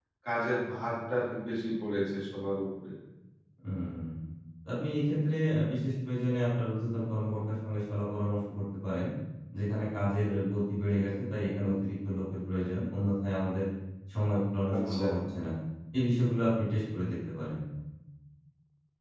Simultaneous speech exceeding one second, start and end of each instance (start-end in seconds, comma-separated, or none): none